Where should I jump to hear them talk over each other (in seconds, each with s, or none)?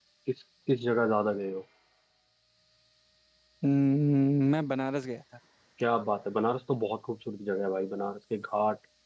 none